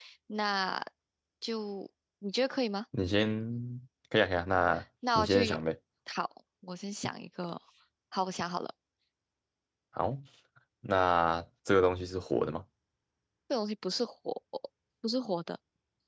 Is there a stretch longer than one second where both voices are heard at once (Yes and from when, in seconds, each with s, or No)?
No